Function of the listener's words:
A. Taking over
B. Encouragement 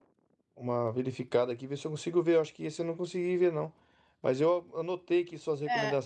B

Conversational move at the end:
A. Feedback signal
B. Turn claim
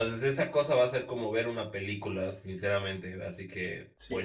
B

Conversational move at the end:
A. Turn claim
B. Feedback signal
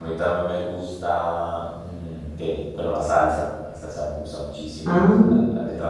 B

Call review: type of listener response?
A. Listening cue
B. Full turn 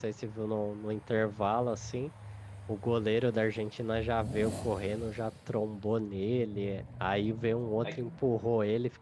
A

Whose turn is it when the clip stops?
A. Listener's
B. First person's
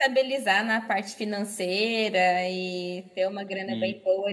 B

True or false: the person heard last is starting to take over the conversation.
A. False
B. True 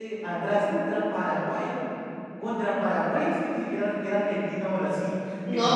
B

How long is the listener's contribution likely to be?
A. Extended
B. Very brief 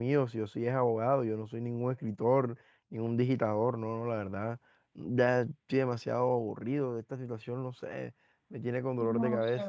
A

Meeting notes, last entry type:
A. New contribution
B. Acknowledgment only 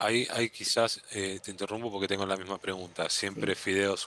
B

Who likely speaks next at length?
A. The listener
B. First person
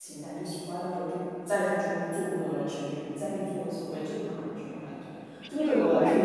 A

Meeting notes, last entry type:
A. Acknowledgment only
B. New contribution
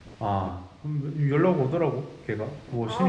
B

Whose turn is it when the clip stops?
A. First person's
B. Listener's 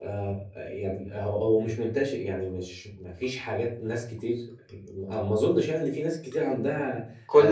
B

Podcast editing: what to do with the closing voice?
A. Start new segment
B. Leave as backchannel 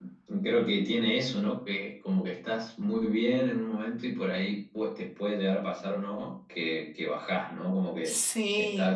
B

